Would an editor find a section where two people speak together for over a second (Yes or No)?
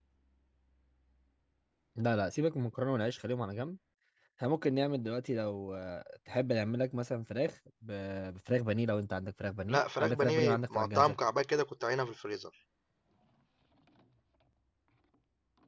Yes